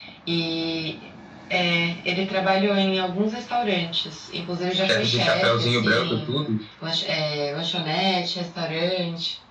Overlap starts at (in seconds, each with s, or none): 4.8 s